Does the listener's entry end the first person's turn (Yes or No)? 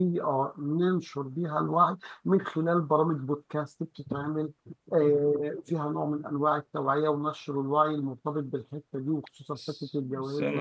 Yes